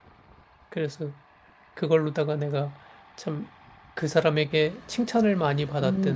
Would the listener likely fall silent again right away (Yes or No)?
No